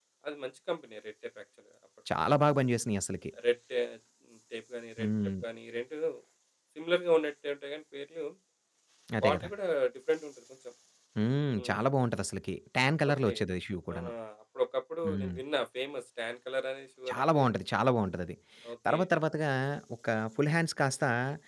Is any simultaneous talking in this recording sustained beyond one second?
No

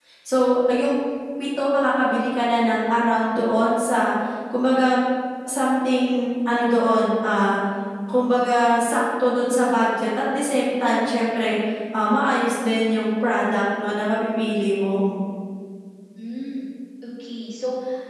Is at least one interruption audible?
No

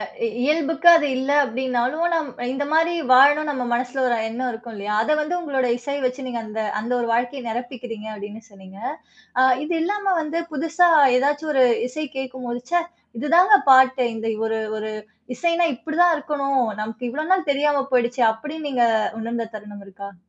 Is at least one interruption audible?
No

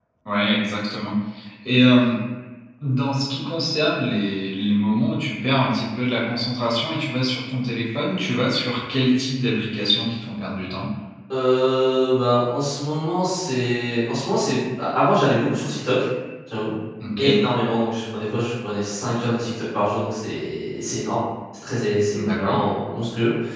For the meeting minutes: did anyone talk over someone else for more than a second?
No

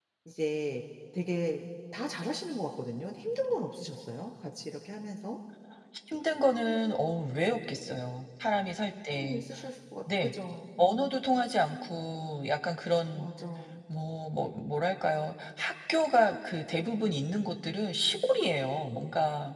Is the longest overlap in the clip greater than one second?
No

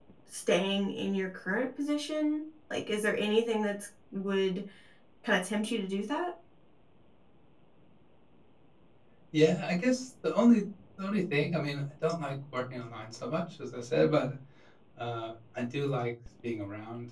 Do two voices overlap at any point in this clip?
No

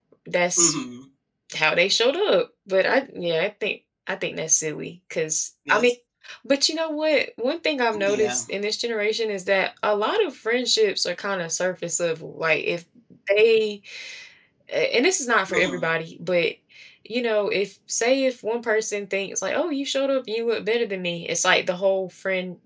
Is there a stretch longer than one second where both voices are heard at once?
No

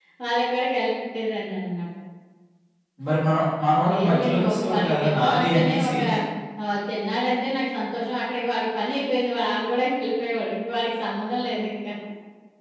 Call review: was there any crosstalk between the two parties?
Yes, from 3.8 s

